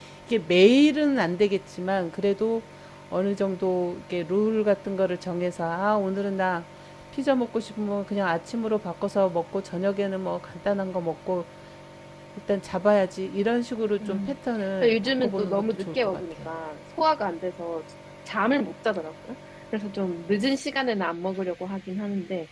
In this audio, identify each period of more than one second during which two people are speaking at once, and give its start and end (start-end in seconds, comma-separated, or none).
14.8-16.5